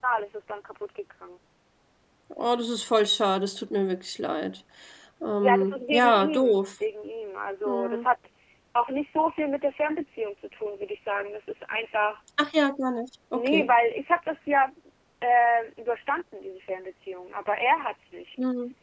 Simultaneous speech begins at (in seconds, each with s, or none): 5.4 s